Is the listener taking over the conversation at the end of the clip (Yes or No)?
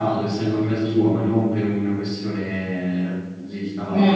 No